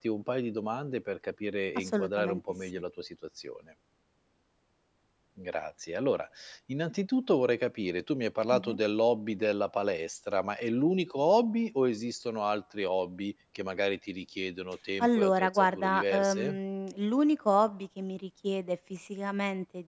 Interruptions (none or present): present